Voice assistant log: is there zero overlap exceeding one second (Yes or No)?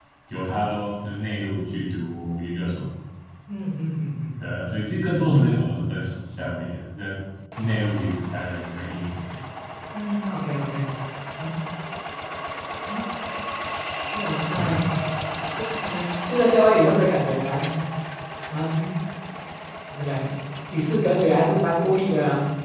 Yes